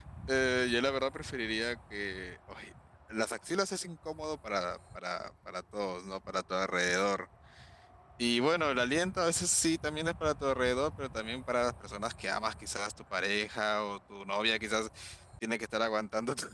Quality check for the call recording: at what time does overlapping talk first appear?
none

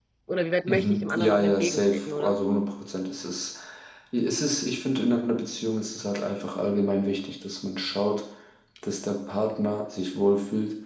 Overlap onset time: 0.7 s

